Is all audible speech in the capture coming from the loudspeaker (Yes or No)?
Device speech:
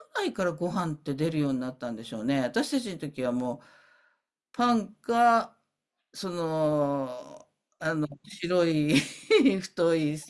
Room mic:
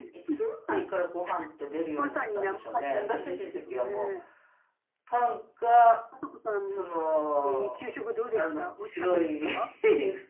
No